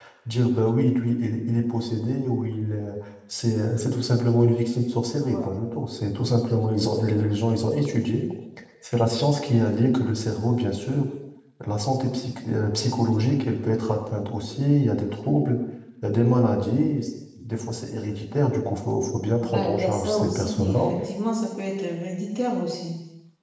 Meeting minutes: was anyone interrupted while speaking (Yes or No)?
Yes